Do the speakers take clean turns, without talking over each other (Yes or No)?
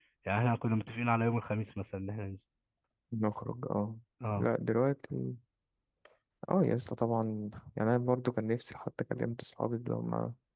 Yes